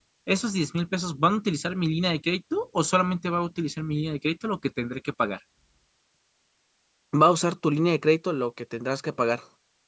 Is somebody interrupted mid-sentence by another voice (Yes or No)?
No